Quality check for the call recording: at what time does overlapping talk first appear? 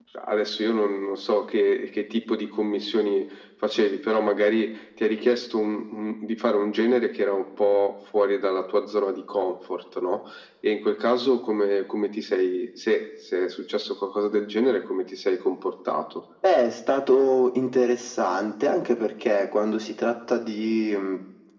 none

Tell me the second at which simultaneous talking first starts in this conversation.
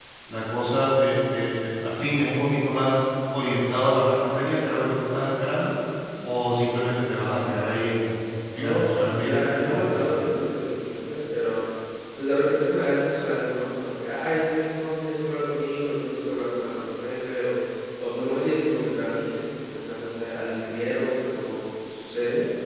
8 s

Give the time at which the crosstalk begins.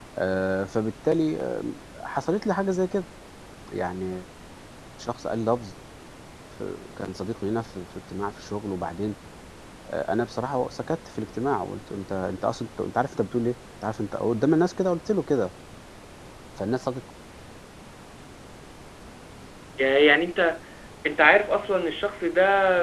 none

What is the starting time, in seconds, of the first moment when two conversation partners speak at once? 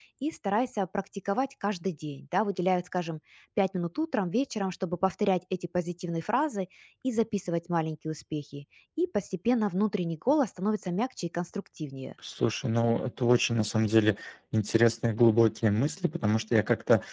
none

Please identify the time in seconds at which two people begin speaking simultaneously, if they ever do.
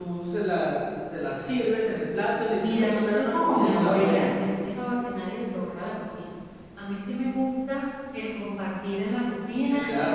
3 s

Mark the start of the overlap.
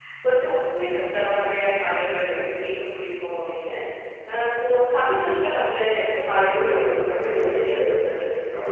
6 s

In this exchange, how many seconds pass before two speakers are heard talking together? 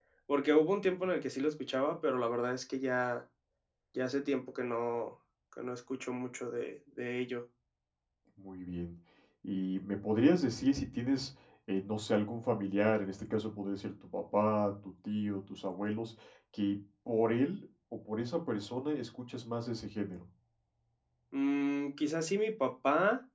none

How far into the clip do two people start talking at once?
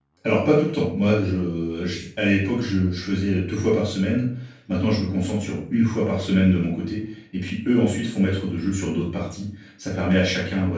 none

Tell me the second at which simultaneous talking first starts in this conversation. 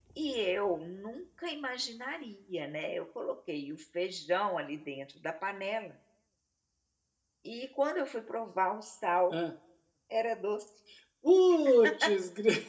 none

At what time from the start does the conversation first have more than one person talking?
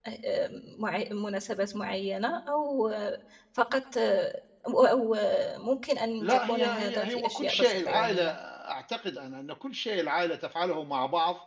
6 s

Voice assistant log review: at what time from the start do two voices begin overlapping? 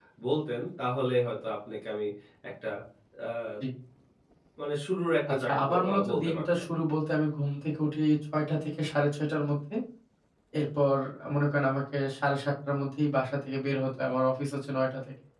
5 s

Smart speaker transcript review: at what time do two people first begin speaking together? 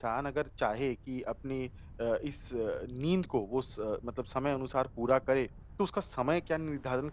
none

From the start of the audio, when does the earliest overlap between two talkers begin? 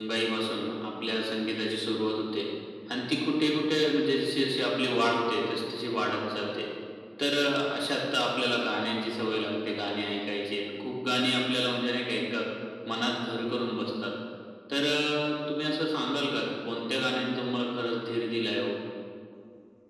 none

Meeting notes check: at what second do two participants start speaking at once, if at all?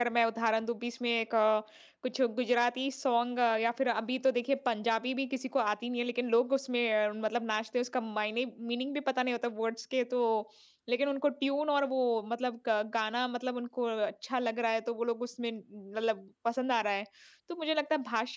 none

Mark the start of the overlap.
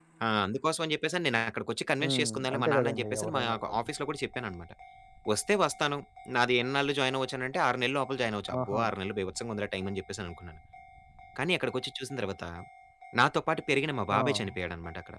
2 s

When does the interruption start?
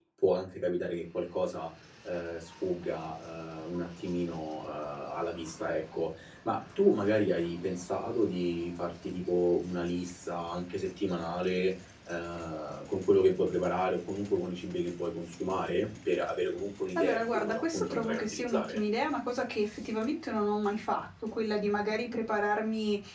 17 s

